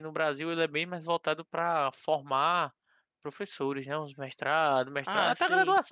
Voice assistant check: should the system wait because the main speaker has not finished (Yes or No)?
Yes